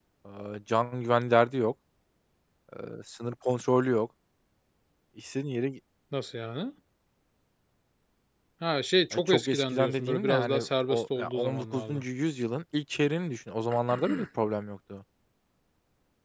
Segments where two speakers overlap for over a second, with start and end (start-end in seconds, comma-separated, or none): 9.1-12.0